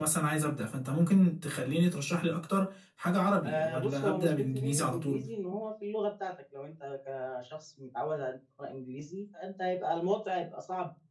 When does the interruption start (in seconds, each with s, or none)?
3.4 s